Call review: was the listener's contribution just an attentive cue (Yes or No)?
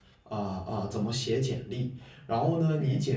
Yes